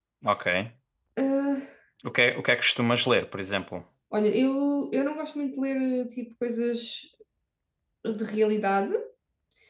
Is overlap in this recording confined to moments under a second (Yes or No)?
Yes